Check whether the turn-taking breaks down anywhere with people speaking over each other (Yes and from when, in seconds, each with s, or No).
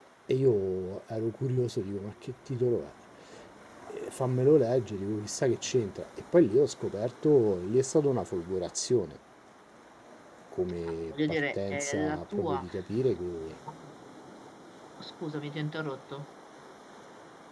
Yes, from 11.1 s